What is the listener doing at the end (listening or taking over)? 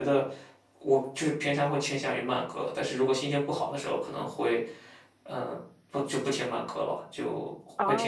taking over